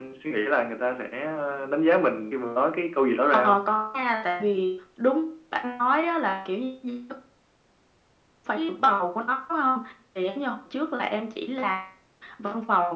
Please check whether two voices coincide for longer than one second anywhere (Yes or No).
No